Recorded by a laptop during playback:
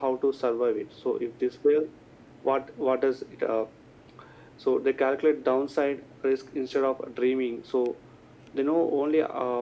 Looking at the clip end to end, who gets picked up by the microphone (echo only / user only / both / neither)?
echo only